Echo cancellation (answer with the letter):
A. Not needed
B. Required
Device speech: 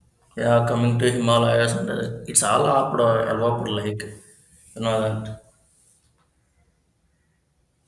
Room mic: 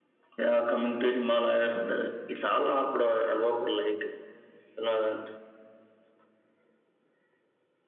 B